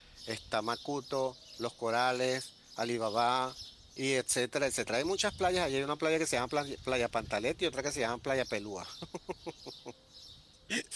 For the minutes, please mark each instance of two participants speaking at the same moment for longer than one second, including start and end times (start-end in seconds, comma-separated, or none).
none